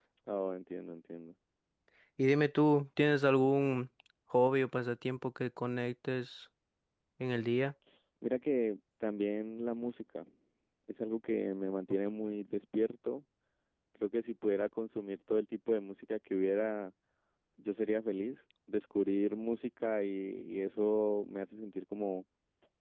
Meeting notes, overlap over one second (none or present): none